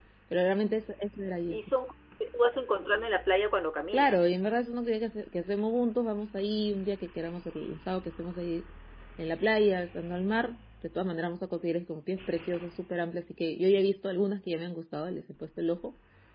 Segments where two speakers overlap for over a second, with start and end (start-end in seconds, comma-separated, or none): none